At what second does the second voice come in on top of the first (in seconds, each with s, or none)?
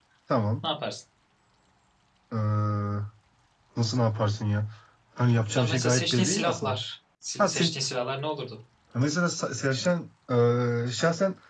5.6 s